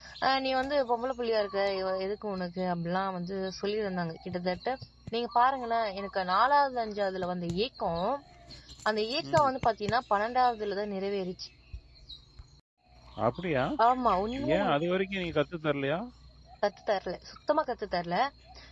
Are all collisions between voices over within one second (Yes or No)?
Yes